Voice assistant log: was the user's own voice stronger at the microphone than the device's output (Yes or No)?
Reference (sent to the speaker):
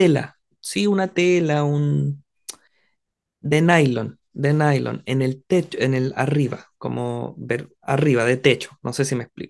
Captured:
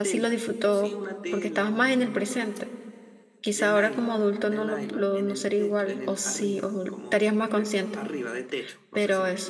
Yes